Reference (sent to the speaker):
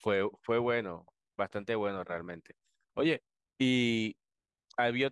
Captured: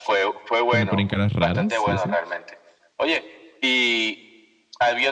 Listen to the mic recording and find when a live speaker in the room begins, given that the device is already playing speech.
0.6 s

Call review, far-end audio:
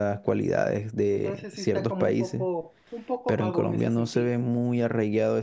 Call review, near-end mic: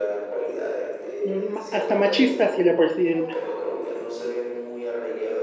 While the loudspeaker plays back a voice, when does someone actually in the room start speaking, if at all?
1.2 s

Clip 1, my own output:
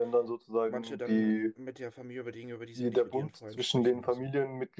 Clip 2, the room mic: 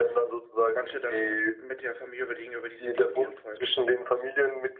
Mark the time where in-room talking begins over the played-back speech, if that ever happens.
none

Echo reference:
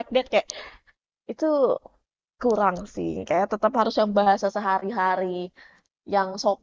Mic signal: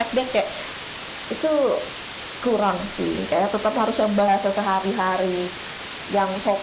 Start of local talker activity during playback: none

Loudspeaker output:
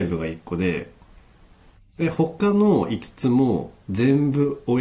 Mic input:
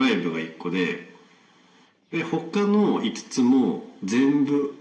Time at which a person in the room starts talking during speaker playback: none

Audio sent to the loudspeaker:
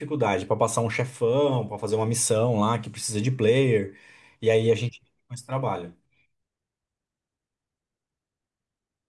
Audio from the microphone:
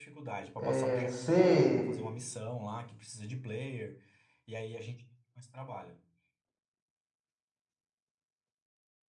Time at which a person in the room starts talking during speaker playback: 0.6 s

